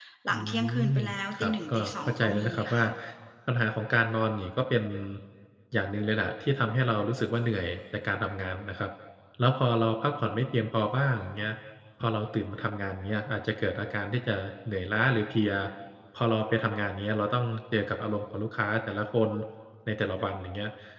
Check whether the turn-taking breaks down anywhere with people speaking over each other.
Yes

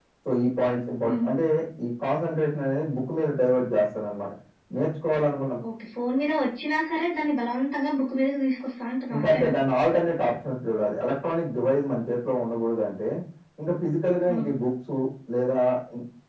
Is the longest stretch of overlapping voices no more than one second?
Yes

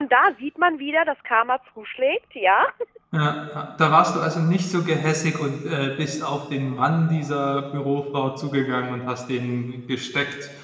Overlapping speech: No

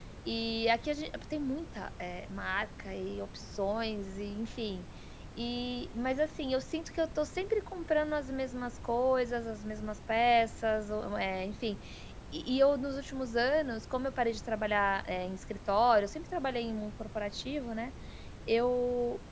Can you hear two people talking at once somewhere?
No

